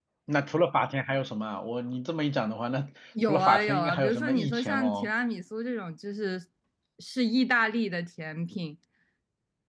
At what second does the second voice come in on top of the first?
3.1 s

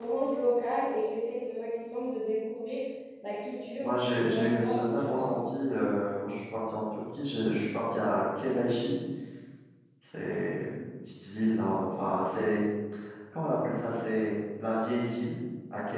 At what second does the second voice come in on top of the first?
3.8 s

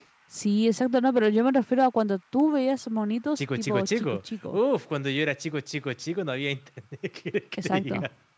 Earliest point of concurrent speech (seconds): 3.4 s

